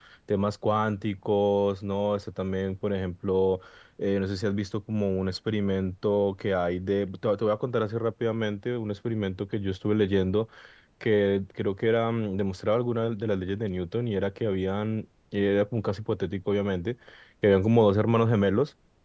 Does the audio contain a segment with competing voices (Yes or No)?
No